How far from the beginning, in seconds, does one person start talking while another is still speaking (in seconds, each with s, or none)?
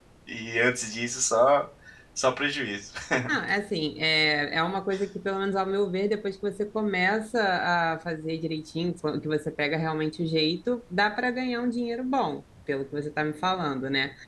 none